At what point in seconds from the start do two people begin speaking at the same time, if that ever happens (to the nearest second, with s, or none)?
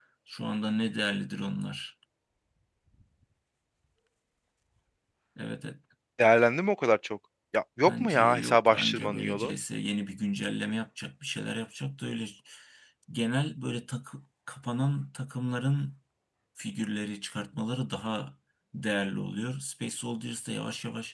8 s